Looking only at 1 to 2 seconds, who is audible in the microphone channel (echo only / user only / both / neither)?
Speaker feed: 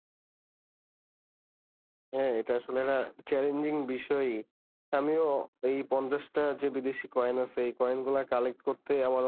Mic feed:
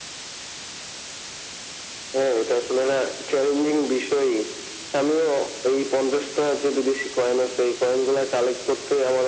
neither